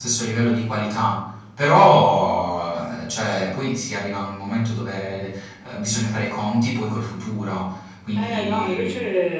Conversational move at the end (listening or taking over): taking over